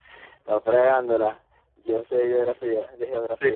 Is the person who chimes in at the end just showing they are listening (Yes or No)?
No